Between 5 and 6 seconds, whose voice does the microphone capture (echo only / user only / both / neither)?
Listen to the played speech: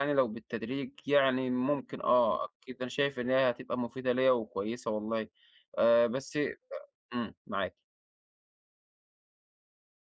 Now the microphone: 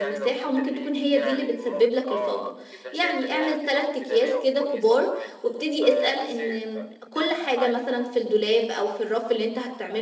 both